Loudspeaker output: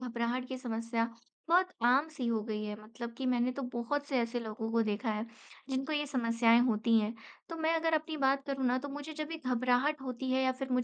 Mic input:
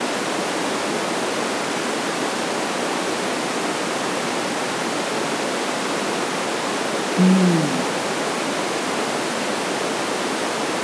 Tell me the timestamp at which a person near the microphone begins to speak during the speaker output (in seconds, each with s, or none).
7.2 s